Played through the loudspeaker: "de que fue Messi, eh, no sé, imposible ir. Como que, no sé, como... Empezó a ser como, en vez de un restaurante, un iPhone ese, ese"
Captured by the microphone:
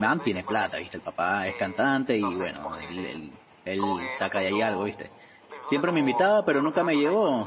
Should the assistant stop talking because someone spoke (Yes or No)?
Yes